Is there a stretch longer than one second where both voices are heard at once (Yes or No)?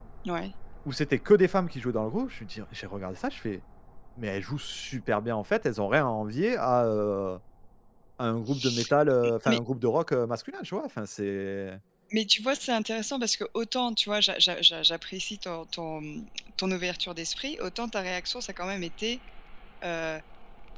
No